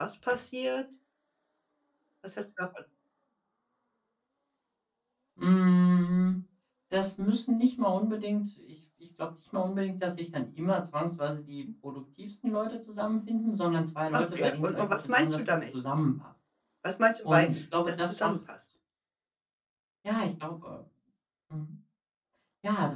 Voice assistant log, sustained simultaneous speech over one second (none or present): present